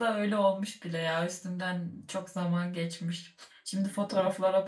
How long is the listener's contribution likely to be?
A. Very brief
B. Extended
A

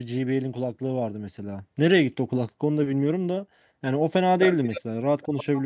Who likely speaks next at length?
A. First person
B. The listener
A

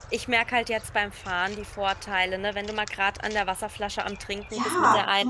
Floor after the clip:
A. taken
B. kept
A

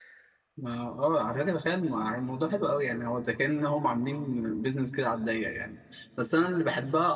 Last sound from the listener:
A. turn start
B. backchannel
B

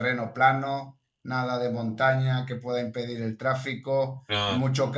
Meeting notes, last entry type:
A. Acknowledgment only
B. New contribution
A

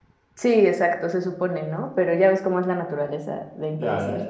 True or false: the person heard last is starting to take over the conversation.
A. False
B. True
B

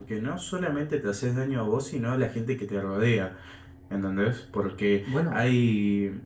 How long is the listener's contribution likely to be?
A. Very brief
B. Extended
A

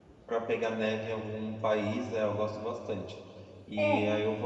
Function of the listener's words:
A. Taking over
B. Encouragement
B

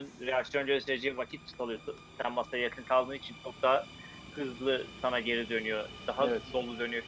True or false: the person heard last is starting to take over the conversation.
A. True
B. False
B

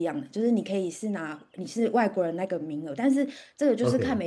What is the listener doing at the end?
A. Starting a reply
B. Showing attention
B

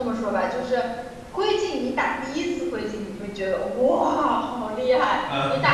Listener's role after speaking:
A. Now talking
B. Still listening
B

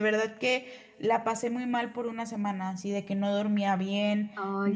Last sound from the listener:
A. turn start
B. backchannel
B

